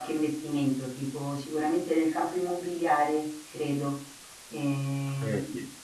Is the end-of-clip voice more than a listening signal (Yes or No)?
Yes